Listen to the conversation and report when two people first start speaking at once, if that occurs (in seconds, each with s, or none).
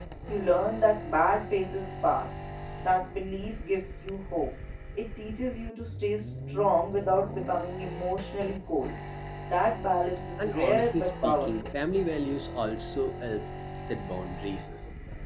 10.4 s